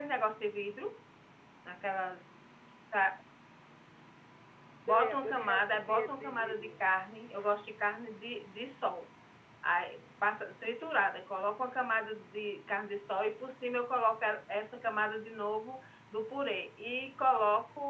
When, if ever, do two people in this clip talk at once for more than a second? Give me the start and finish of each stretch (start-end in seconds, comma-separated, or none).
4.9-6.8